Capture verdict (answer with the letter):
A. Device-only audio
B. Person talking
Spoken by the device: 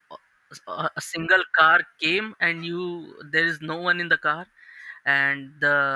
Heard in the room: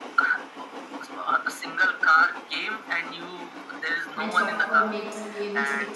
B